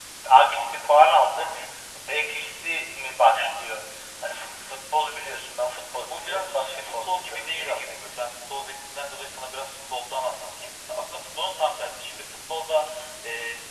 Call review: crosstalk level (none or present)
present